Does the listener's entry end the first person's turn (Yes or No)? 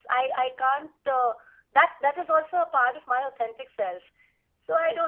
Yes